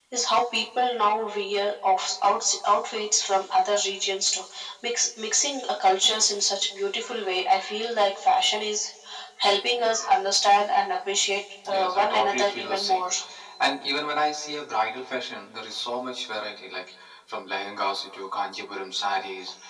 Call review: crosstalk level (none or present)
present